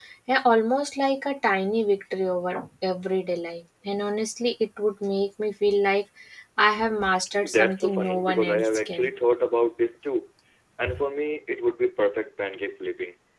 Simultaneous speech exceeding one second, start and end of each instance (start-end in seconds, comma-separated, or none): 7.4-9.1